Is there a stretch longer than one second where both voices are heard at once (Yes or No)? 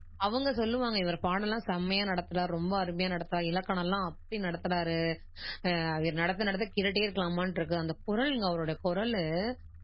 No